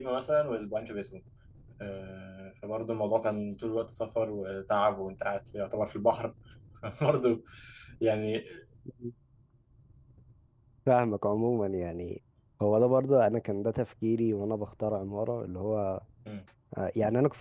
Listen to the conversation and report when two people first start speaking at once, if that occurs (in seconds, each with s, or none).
none